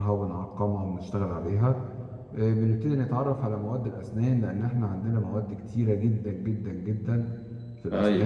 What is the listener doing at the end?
listening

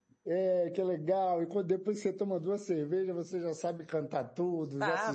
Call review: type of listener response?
taking over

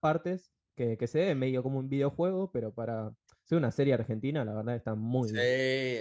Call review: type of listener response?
taking over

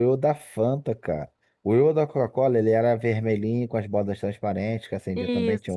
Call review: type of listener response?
listening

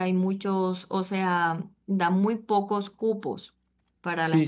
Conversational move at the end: taking over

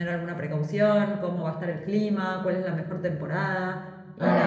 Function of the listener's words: taking over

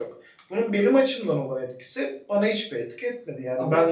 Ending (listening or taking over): listening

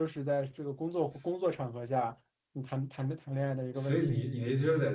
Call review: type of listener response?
taking over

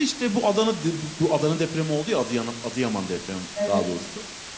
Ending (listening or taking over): listening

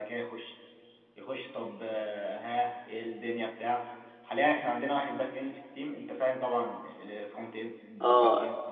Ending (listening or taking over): taking over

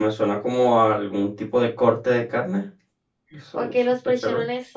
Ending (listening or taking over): taking over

